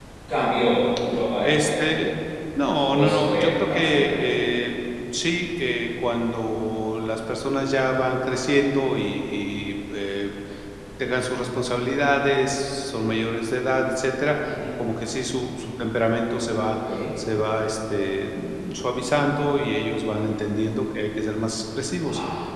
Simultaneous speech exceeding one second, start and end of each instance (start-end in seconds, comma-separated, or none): 2.9-4.2